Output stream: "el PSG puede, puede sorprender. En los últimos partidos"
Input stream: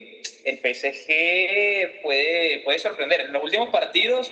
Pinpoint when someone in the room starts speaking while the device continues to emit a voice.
none

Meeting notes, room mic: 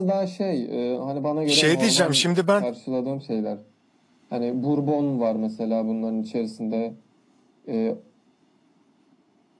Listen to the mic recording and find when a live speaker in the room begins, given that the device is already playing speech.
1 s

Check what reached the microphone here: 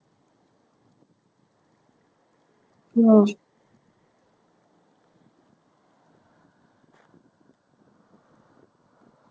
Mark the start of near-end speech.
3 s

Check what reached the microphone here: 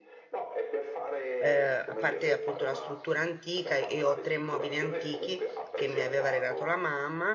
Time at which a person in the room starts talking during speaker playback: 1 s

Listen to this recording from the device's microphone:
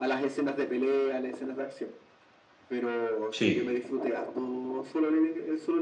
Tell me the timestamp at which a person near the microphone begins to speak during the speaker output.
3 s

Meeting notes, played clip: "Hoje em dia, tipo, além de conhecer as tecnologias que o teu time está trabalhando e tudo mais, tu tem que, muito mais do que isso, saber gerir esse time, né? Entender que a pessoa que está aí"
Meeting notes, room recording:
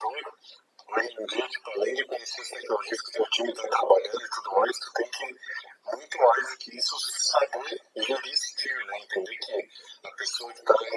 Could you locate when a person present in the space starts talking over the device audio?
none

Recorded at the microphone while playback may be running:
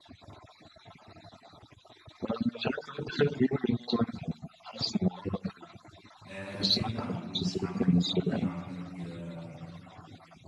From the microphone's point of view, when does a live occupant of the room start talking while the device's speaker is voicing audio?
6 s

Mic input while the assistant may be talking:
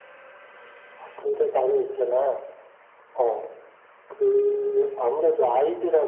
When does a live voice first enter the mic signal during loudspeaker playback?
none

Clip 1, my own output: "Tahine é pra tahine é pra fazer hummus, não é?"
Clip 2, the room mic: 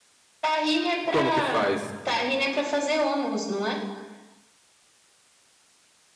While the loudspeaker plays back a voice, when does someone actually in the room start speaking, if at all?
1 s

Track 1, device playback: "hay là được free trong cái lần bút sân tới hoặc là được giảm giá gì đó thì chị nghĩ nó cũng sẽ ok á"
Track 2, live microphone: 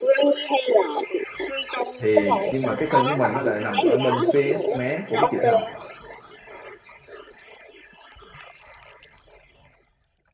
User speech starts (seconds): 2 s

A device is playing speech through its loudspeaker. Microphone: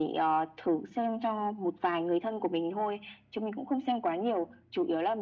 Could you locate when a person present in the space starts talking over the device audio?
none

